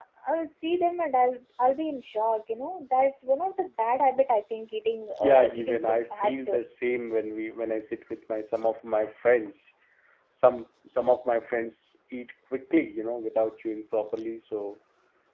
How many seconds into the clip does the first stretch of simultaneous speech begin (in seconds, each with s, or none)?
5.2 s